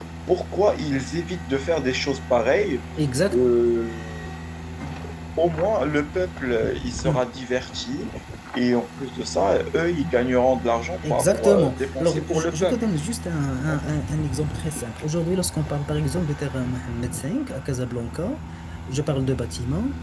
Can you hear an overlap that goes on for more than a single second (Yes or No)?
Yes